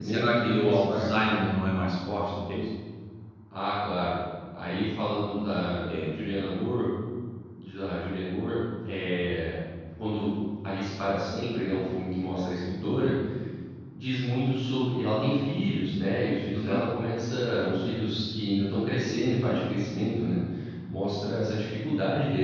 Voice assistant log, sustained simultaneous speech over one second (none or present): present